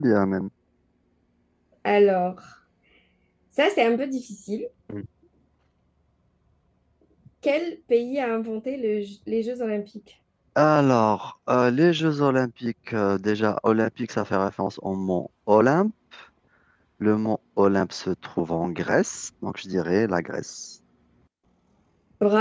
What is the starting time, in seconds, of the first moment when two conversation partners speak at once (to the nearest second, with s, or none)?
none